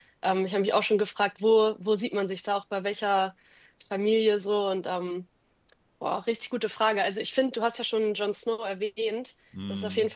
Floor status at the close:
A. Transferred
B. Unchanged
B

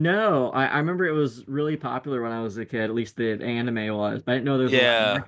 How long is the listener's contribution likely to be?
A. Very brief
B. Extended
B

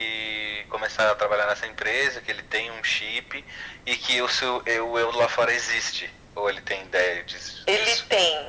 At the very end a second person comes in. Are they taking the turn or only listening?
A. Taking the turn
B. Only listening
A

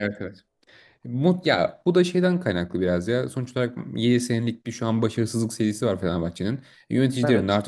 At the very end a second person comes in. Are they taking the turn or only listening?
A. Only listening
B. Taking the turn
A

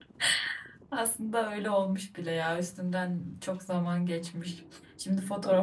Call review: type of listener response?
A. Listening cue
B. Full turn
A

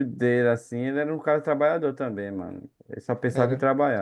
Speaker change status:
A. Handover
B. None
A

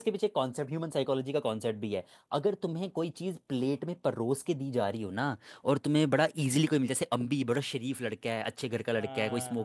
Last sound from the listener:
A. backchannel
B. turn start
A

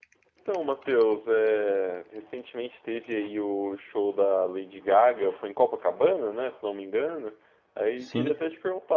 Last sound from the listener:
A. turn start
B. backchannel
B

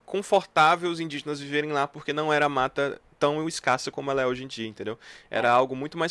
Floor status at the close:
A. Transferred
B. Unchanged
B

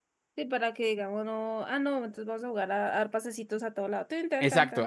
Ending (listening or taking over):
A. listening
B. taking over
B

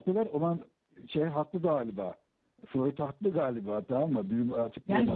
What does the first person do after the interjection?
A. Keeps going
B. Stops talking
B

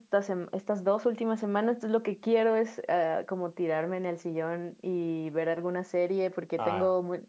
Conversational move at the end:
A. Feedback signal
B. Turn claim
A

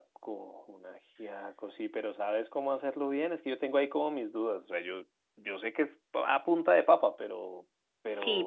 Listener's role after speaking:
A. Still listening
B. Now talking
B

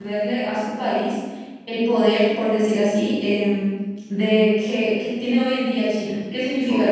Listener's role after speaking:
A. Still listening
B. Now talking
B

